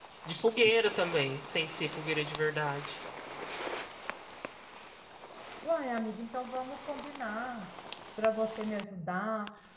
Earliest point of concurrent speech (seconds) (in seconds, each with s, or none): none